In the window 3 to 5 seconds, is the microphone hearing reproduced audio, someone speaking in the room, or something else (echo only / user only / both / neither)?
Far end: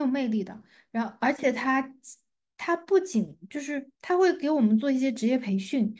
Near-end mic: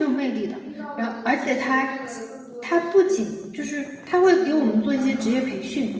both